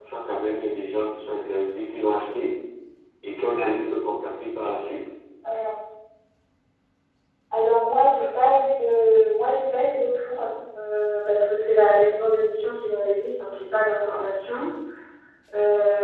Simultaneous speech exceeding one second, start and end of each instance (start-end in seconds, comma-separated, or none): none